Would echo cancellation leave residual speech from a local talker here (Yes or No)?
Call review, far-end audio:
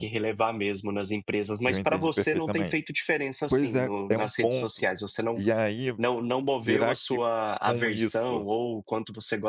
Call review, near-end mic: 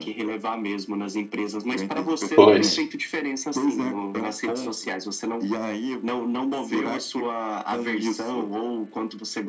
Yes